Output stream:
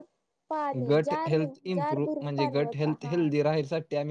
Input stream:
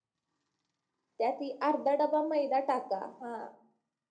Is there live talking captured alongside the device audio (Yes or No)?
Yes